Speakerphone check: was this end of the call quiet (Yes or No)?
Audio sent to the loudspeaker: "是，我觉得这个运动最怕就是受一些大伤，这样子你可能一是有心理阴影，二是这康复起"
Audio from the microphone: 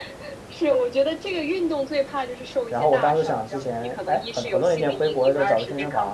No